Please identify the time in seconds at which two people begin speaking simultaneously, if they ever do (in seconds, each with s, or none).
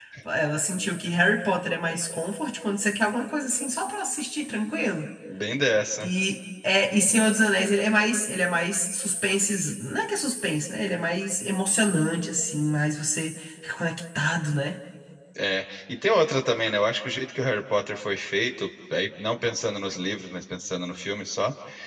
none